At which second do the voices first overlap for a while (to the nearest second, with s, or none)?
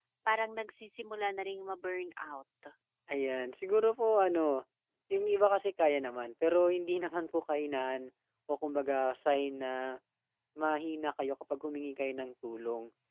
none